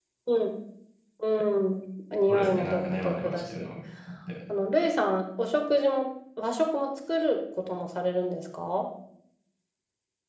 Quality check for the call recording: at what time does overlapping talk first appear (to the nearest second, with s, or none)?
2 s